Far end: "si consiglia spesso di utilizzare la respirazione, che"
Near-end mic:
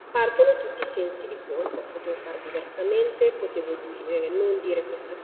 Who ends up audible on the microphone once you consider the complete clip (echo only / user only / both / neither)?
user only